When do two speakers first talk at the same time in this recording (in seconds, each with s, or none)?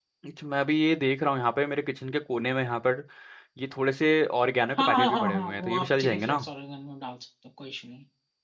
4.7 s